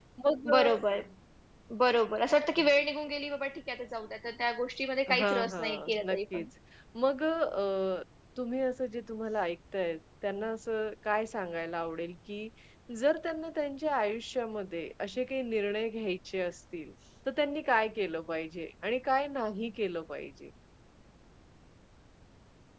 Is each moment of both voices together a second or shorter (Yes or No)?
No